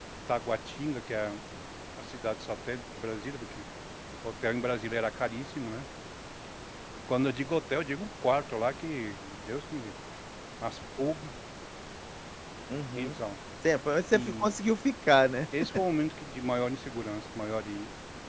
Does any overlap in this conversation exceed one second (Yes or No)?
No